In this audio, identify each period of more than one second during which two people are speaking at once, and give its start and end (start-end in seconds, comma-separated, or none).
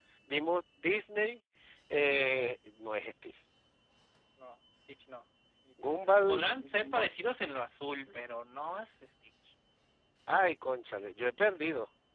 5.8-7.0